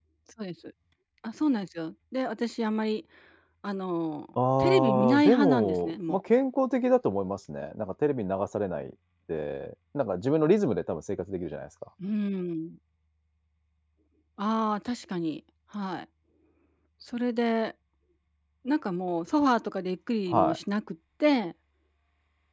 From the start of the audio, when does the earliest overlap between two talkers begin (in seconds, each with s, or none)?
4.6 s